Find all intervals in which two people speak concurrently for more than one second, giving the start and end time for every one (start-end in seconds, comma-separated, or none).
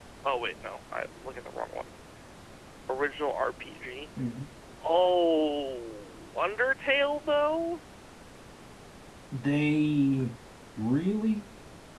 none